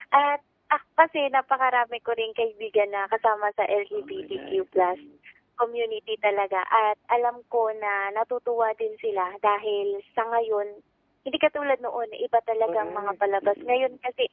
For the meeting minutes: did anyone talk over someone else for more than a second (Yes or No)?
Yes